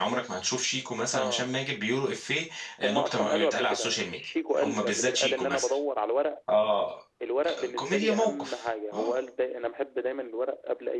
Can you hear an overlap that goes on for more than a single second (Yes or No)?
Yes